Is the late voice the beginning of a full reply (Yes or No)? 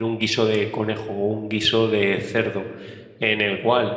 No